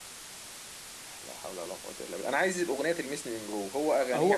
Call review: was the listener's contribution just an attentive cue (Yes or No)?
No